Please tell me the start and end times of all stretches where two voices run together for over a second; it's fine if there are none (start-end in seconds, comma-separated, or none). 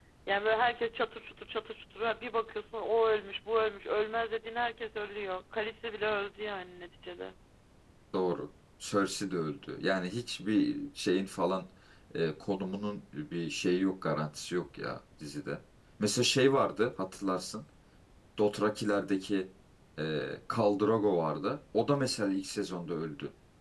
none